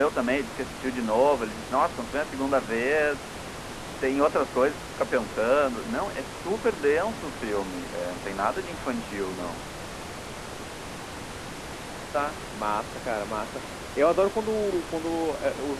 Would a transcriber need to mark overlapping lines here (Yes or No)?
No